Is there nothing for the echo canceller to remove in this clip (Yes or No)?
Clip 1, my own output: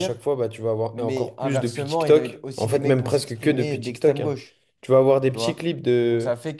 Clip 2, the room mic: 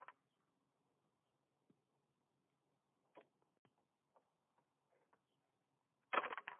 Yes